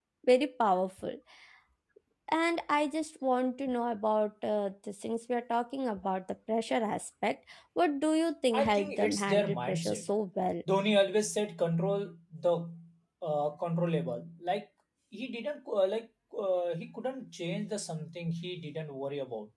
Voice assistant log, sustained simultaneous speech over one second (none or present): present